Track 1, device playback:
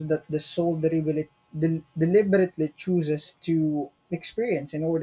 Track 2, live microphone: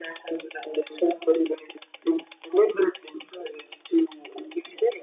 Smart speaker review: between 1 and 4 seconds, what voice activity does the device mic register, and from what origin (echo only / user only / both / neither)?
echo only